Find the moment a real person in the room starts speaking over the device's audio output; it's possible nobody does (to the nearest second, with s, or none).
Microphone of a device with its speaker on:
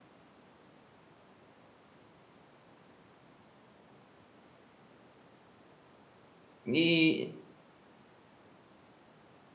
7 s